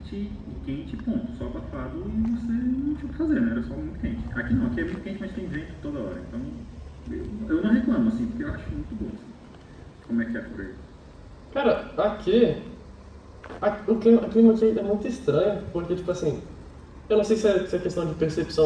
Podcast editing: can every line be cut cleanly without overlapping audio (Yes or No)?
Yes